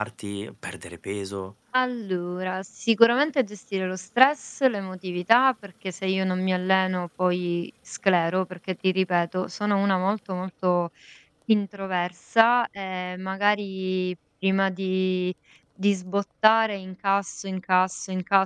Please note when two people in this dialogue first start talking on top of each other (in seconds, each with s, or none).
none